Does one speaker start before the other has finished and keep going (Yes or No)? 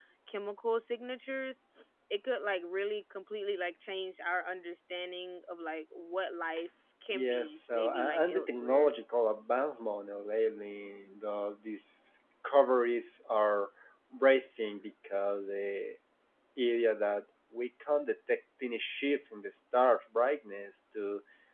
Yes